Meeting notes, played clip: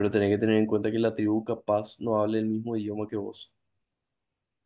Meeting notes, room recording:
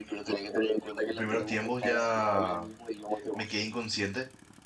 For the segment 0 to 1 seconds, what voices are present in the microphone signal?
echo only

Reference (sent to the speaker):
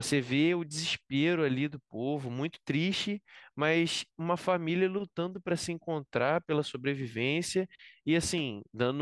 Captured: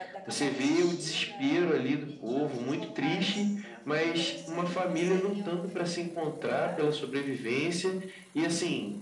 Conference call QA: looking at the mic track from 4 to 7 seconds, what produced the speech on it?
both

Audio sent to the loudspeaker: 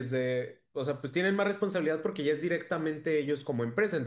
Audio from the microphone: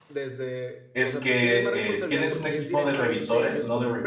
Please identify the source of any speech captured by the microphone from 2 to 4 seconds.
both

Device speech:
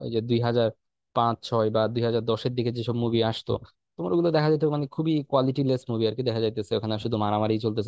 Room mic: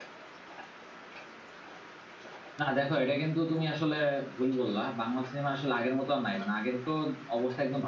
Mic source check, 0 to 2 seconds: neither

